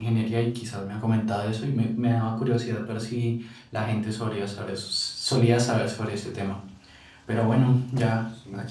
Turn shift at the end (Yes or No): No